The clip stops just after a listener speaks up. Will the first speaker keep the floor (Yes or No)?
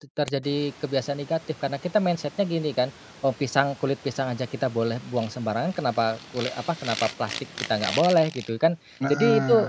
Yes